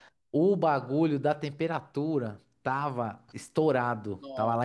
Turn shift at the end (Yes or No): No